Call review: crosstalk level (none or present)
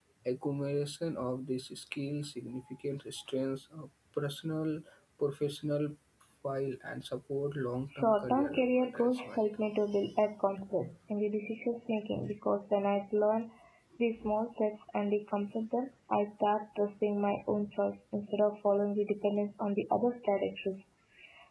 present